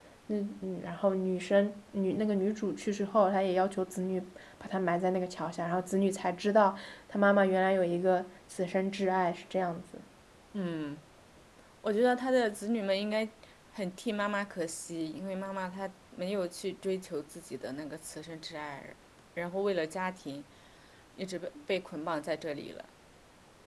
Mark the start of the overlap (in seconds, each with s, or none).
none